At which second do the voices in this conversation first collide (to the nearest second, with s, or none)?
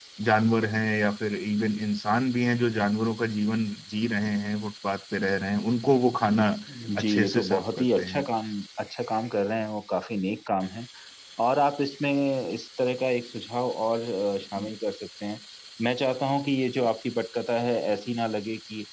7 s